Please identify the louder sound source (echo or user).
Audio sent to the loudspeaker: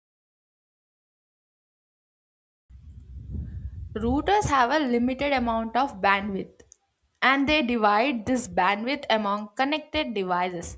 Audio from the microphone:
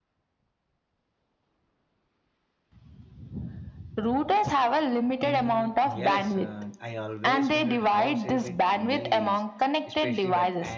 echo